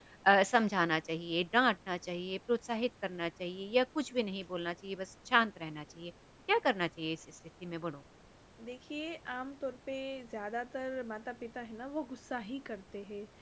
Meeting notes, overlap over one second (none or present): none